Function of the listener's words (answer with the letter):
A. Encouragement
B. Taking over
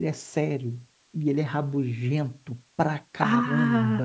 A